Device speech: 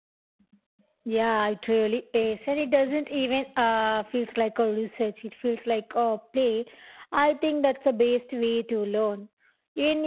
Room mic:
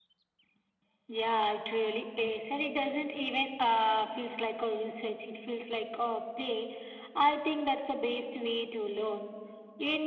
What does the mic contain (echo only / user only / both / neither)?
echo only